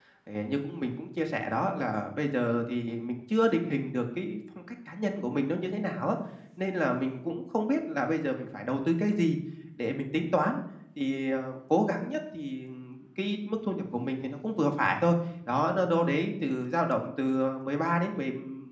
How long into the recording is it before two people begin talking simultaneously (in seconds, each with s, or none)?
none